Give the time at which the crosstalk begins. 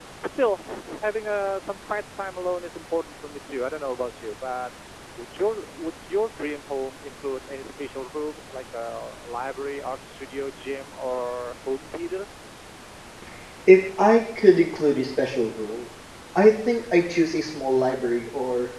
none

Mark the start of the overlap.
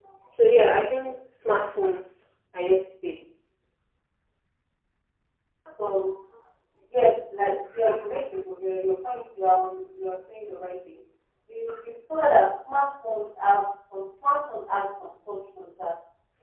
none

